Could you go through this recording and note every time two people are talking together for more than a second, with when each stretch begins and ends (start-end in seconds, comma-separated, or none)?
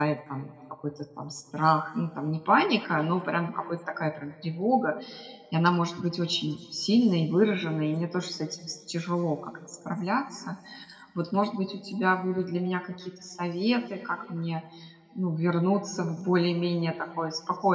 none